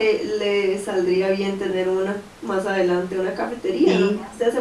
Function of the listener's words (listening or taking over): listening